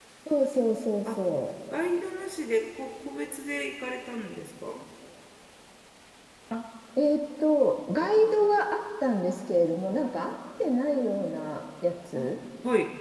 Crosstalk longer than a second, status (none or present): none